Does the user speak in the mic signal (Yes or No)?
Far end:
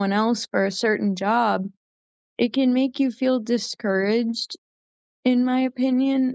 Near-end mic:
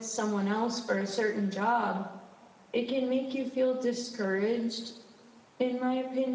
No